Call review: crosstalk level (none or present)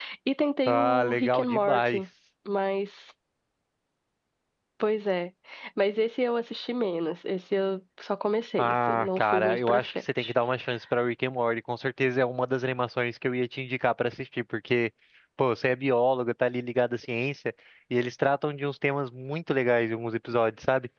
present